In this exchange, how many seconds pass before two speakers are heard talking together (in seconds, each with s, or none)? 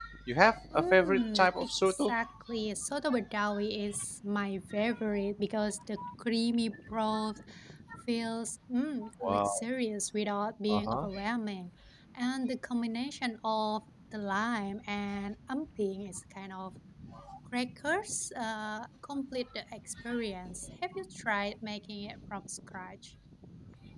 0.7 s